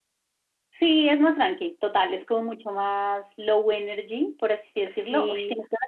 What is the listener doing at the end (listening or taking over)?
listening